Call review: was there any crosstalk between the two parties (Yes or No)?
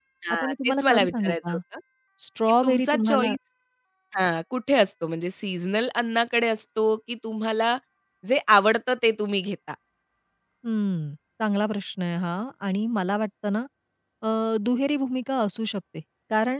Yes